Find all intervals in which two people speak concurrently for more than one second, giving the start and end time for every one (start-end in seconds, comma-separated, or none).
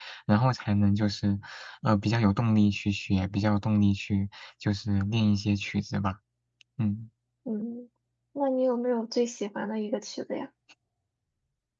none